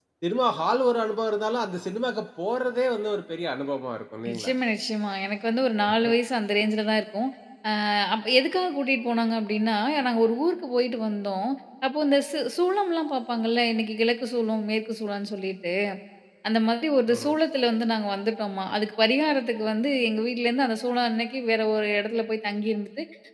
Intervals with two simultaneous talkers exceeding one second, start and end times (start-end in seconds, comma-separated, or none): none